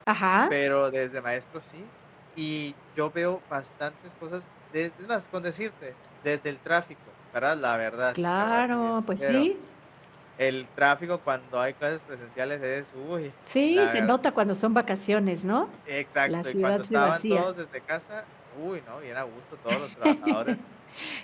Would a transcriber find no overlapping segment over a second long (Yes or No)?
No